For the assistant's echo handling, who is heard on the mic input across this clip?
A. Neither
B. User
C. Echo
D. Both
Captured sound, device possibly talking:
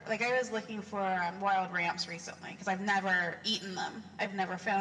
C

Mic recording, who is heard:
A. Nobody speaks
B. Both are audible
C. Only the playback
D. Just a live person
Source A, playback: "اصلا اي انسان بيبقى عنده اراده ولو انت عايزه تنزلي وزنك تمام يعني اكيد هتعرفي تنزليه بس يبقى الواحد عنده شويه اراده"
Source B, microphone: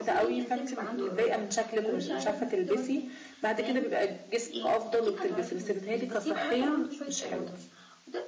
B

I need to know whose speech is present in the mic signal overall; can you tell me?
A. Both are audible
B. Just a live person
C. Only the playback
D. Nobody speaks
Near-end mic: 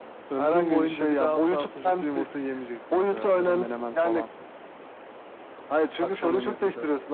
A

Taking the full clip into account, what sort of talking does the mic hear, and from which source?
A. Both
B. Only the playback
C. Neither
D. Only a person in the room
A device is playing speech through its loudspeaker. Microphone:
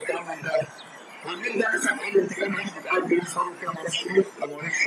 B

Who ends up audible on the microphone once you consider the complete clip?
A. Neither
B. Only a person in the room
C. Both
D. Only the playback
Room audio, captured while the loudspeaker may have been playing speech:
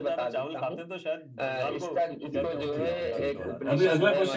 C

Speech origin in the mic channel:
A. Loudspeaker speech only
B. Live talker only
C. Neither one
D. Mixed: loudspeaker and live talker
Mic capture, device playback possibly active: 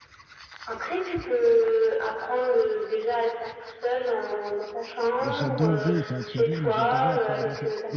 D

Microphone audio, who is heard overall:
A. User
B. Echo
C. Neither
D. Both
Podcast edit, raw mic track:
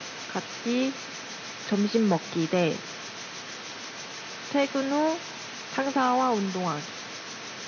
B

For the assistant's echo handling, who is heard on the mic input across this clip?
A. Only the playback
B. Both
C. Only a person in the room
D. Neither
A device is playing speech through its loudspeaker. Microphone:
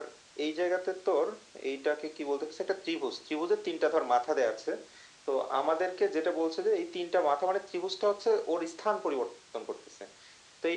A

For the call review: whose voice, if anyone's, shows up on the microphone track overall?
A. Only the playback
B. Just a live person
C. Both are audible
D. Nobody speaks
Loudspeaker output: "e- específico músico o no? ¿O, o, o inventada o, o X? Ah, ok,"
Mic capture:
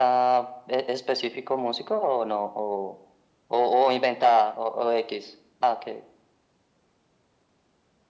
A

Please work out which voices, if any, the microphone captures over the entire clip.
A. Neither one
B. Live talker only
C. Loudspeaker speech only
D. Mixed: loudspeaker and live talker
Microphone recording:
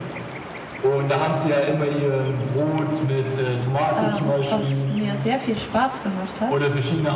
D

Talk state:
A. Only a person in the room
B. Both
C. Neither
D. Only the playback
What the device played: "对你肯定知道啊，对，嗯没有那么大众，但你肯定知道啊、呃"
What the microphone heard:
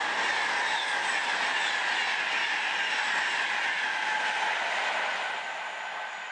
C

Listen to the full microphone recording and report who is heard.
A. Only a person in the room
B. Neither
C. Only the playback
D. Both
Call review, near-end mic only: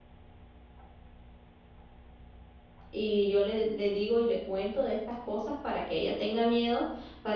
A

